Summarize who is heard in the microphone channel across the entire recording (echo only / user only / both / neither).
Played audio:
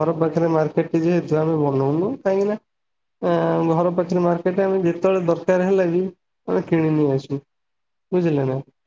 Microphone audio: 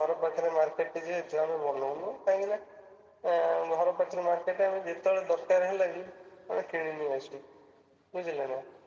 echo only